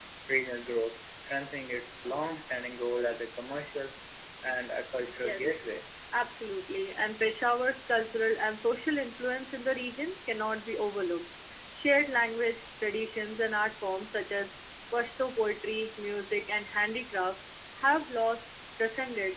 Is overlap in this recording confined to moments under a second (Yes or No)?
Yes